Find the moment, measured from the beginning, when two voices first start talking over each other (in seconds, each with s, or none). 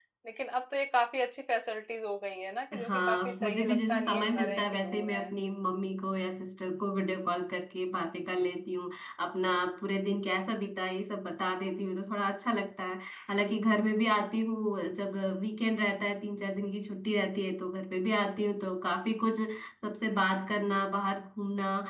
2.7 s